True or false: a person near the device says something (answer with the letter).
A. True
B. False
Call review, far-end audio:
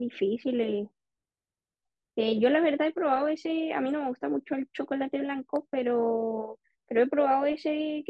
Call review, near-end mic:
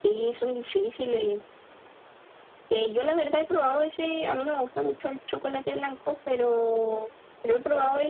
B